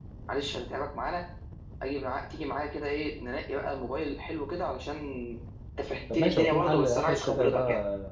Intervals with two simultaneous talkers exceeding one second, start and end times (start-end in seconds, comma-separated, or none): 6.1-7.6